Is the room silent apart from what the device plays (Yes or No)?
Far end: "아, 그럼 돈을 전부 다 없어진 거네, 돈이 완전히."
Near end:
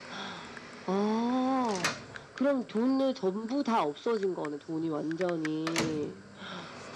Yes